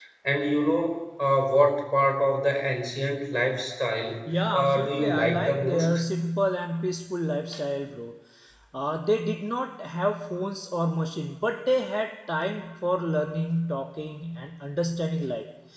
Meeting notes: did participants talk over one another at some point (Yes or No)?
Yes